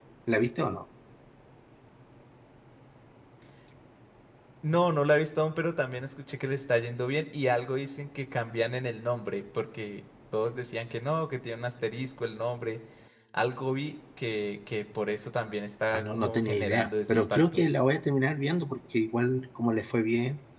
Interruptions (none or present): present